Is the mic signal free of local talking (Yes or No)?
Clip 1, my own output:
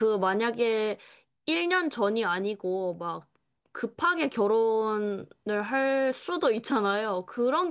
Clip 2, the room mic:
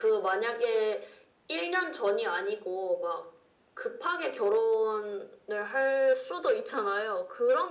Yes